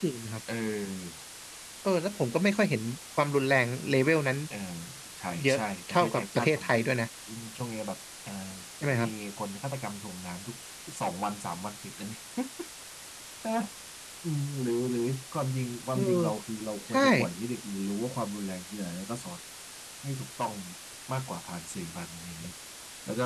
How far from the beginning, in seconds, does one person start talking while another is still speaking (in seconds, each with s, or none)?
5.4 s